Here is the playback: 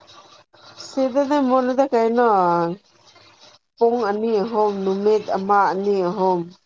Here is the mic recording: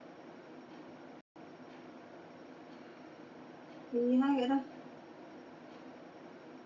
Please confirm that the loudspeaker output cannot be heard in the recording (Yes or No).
Yes